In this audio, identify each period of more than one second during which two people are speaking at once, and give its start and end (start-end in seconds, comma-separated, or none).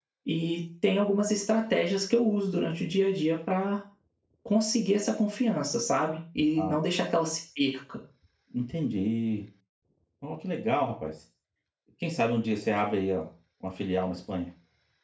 none